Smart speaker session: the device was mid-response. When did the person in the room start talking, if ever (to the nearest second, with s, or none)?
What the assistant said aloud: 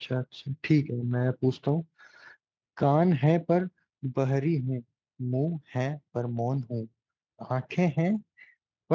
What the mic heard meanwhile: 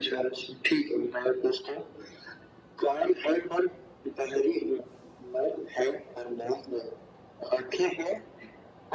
none